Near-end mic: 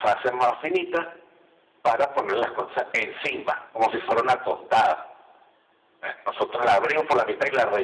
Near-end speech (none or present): none